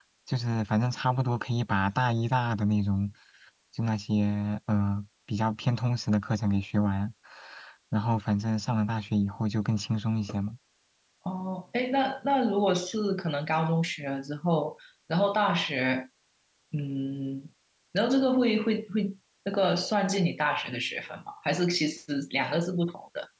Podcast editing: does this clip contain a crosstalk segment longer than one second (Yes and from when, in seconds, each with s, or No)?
No